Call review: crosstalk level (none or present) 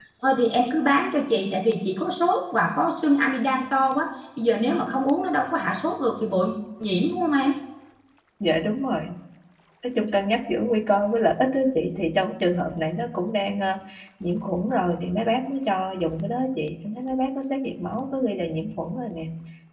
none